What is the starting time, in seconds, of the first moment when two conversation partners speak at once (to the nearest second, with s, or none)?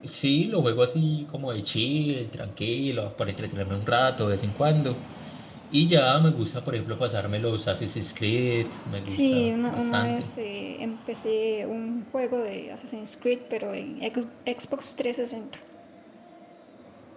9 s